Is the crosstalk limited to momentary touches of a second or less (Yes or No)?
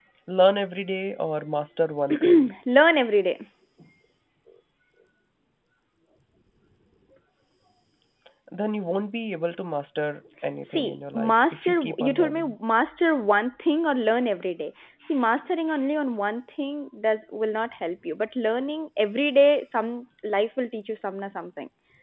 No